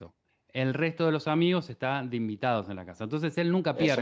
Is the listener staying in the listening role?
No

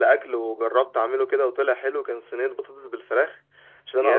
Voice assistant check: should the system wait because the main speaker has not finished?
Yes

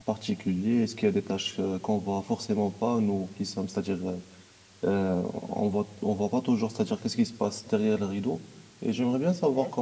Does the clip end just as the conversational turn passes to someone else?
No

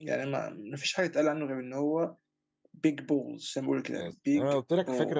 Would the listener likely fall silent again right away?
No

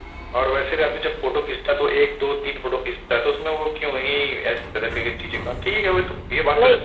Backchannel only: Yes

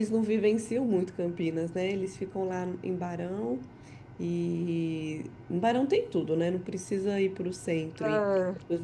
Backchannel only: Yes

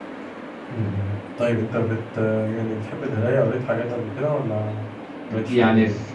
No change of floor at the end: No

